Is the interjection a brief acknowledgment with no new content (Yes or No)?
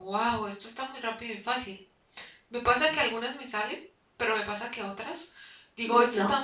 Yes